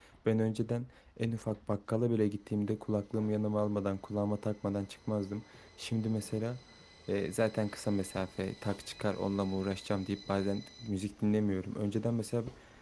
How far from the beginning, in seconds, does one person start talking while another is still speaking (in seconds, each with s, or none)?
none